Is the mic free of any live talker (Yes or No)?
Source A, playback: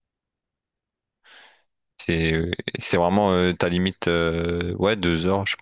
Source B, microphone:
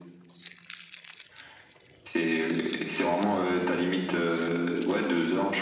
Yes